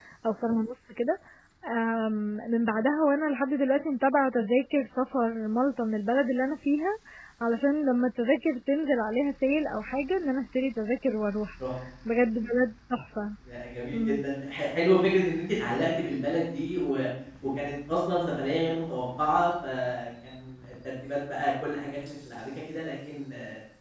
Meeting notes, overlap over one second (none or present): none